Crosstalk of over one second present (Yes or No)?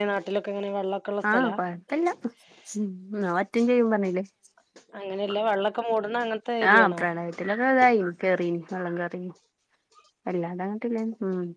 No